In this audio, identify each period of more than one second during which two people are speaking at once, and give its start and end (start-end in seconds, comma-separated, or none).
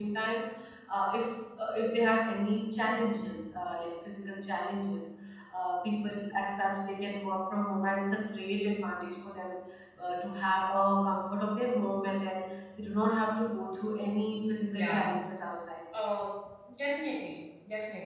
none